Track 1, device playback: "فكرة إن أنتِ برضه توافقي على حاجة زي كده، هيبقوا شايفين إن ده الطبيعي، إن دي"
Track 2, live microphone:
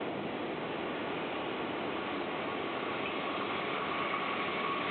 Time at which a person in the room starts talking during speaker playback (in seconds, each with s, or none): none